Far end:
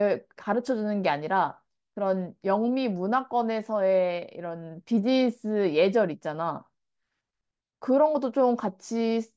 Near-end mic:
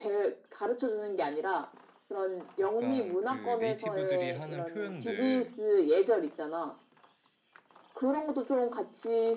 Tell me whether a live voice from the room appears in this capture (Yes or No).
Yes